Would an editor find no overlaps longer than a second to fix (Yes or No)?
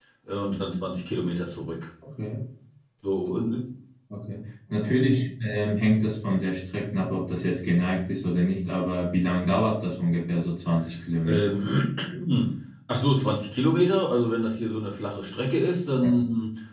Yes